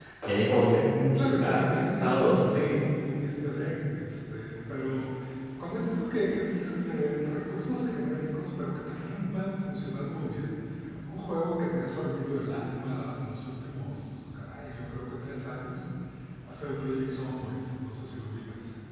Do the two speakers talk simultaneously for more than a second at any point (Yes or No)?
Yes